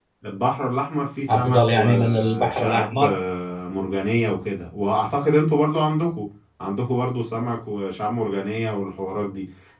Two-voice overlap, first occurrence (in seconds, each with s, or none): 1.3 s